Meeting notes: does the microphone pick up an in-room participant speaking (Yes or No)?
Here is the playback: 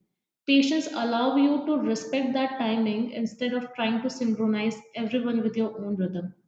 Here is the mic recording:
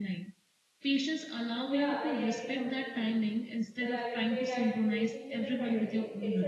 Yes